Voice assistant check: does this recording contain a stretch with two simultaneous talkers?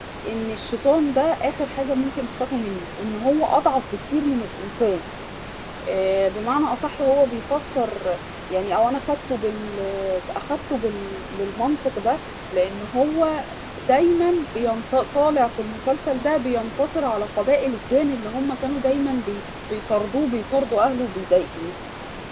No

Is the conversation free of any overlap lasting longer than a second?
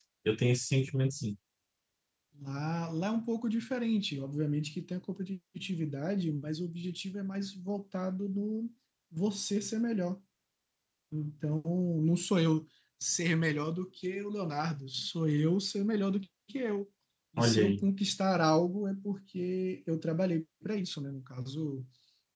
Yes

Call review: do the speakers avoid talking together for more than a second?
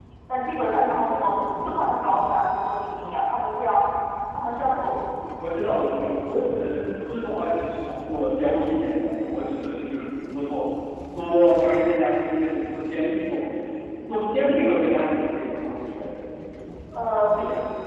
Yes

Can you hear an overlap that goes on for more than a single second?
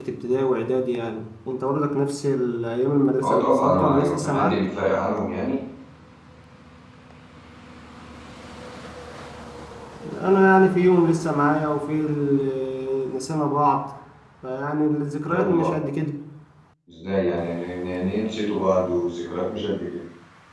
Yes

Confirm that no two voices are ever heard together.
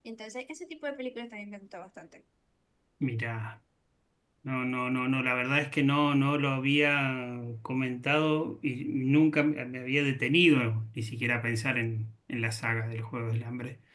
Yes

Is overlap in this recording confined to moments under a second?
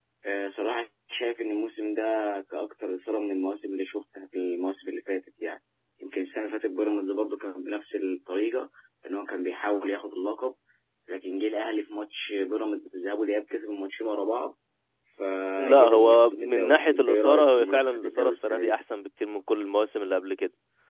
No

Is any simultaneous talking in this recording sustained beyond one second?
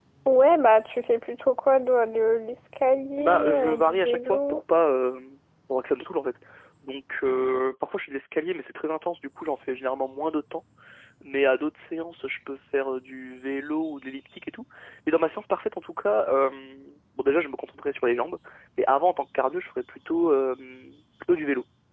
Yes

